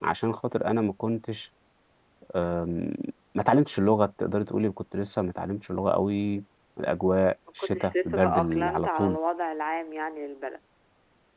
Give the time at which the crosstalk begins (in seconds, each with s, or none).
7.6 s